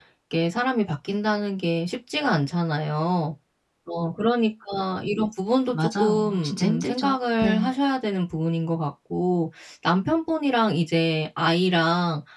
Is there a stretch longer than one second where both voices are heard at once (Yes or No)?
Yes